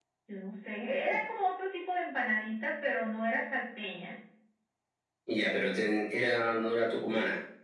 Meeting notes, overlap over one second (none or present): none